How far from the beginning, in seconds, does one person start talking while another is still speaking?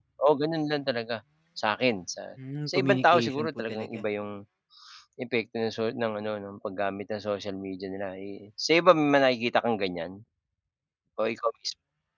2.7 s

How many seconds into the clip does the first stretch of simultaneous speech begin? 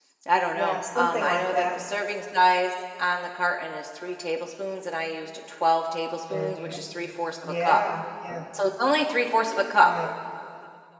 0.6 s

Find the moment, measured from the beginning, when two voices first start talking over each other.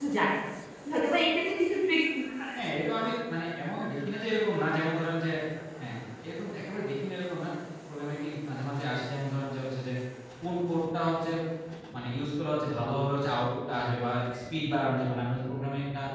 none

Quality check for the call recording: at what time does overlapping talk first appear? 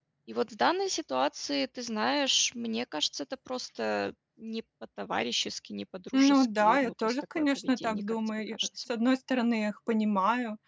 6.1 s

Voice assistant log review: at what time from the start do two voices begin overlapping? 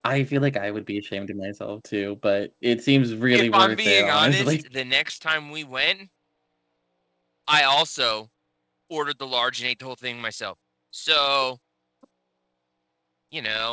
3.3 s

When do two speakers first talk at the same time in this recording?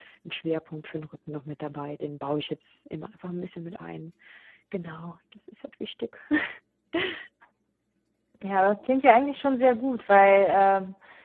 none

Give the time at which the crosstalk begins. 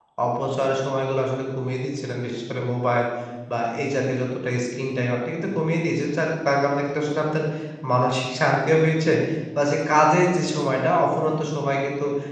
none

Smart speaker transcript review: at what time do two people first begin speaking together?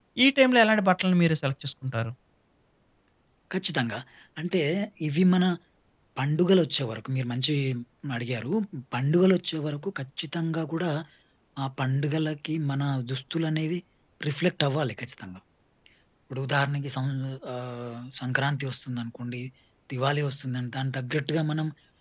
none

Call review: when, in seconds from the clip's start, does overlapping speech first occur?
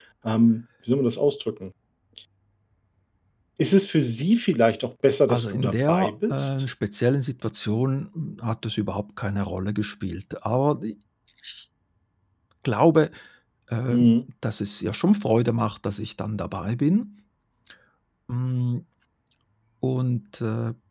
5.3 s

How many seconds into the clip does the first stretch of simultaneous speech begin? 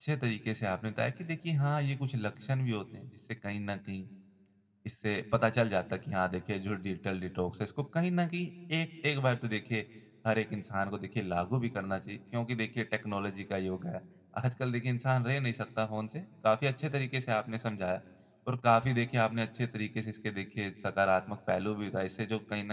none

